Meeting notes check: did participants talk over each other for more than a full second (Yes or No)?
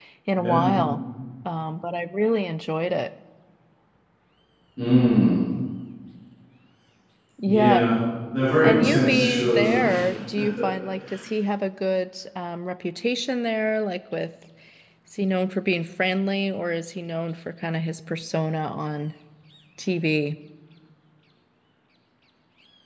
Yes